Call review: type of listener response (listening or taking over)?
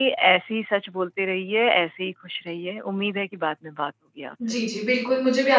taking over